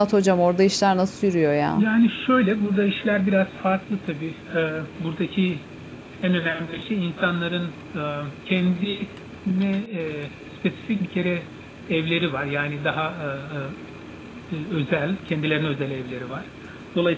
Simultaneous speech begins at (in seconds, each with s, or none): none